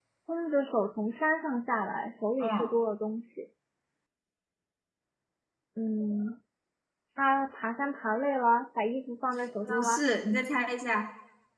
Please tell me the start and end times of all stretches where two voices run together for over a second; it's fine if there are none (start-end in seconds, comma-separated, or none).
none